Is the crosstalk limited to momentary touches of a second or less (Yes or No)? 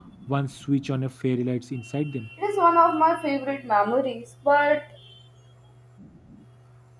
Yes